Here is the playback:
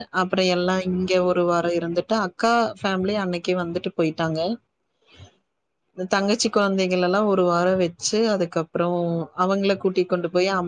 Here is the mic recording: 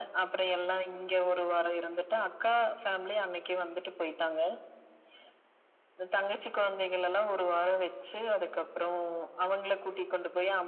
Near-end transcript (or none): none